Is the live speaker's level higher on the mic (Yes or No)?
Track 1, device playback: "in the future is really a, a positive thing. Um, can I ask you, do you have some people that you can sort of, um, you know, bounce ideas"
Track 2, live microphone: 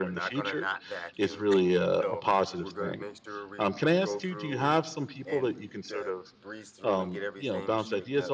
No